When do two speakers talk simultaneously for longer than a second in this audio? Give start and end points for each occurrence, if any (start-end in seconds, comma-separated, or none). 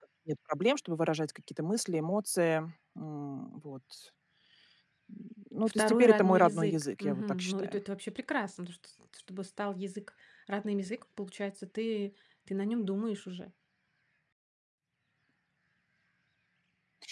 5.8-7.8